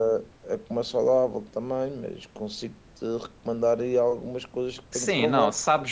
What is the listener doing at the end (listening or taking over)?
taking over